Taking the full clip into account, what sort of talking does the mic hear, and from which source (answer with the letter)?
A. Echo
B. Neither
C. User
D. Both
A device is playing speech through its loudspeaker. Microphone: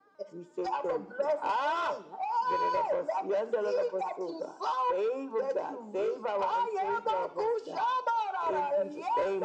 A